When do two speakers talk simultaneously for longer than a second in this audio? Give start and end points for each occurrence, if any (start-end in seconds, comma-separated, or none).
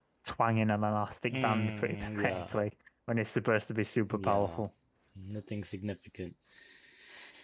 1.3-2.6